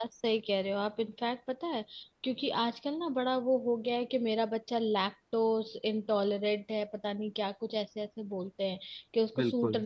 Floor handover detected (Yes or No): No